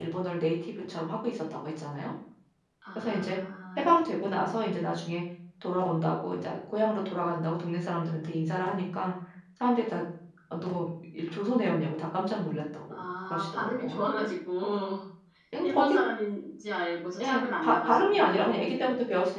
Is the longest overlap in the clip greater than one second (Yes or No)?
Yes